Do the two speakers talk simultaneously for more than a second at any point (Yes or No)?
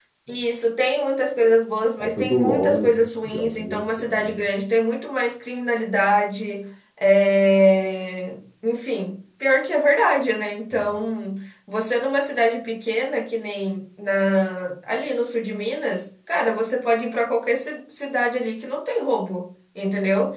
Yes